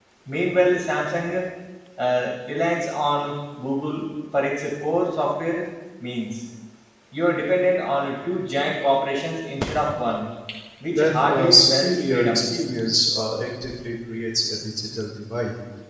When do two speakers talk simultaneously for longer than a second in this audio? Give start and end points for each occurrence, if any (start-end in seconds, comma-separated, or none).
10.9-12.4